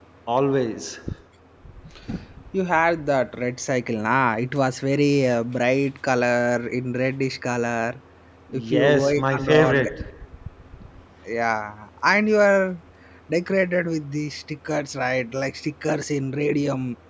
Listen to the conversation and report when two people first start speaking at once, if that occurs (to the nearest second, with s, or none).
9 s